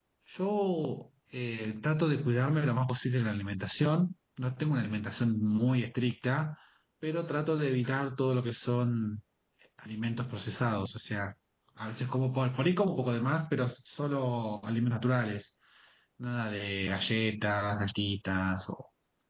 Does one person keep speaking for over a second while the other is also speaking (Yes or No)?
No